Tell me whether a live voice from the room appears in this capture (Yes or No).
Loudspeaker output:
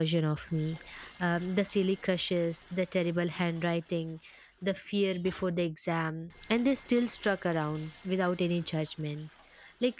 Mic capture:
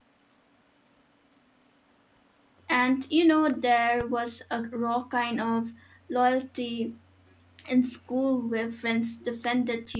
Yes